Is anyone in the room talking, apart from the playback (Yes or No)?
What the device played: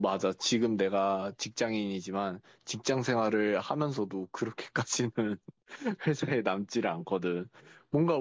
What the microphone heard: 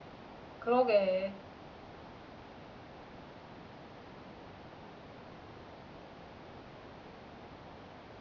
Yes